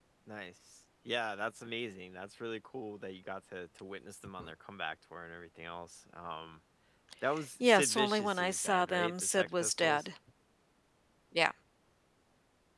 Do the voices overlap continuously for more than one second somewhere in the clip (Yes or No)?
Yes